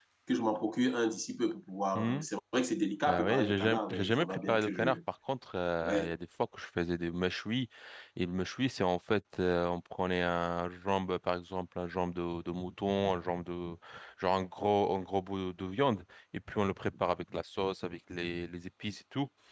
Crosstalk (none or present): present